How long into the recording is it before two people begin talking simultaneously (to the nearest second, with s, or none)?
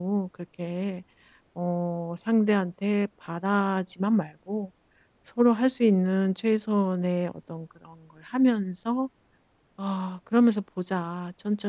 none